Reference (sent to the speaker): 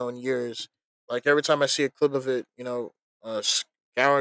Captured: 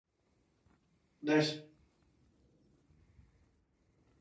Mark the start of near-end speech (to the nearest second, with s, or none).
1 s